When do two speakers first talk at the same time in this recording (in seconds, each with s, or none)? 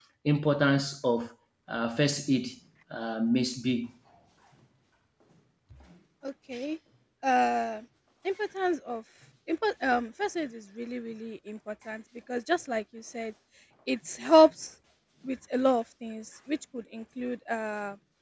none